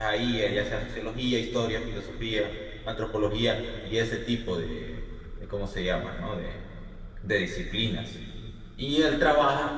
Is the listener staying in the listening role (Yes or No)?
Yes